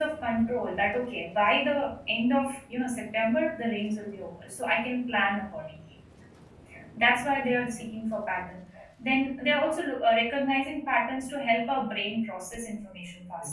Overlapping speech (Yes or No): No